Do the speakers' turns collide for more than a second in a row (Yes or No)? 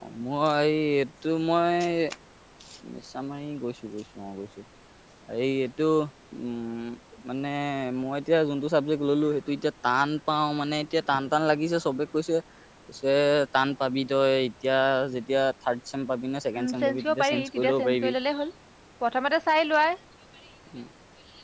Yes